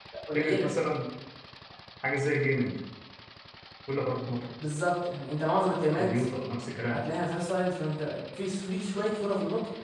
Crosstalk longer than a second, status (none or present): none